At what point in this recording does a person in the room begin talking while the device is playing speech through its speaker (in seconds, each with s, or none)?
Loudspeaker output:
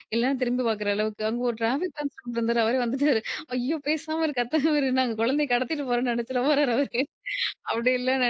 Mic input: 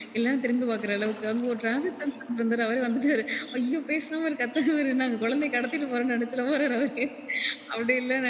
none